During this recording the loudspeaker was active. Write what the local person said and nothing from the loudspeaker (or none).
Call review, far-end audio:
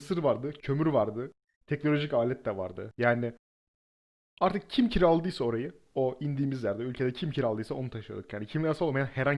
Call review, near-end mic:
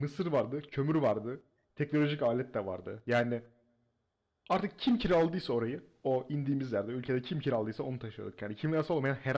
none